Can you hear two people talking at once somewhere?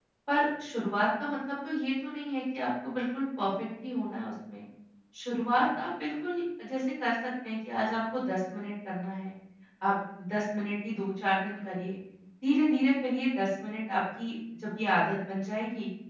No

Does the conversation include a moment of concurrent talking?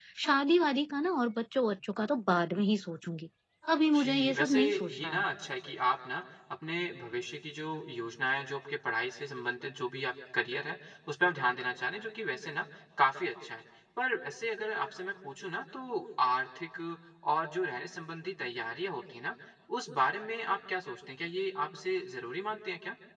Yes, from 3.9 s

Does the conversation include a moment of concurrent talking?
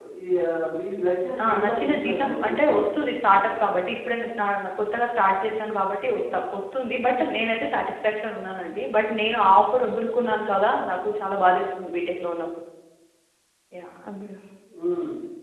Yes, from 1.4 s

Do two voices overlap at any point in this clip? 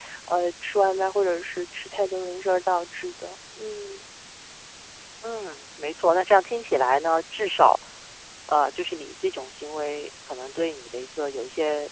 No

